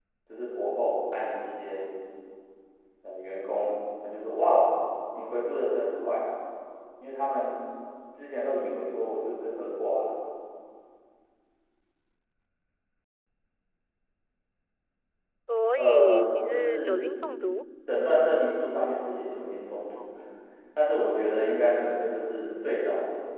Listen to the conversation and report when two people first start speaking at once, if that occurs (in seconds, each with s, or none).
15.7 s